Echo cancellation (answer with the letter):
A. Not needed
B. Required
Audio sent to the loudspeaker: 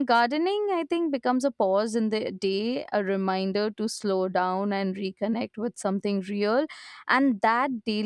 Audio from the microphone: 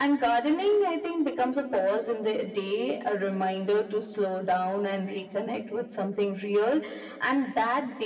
B